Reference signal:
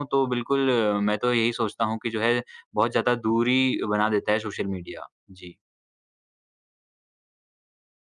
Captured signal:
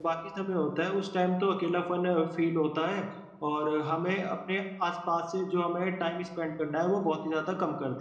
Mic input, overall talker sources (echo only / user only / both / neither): user only